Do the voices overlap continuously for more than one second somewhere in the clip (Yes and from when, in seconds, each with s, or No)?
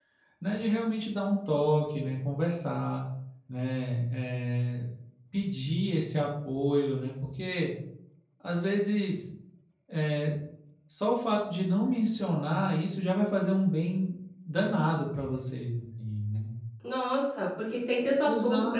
No